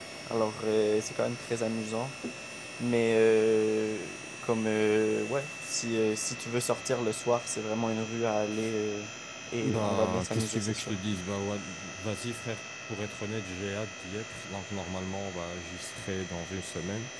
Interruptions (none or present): present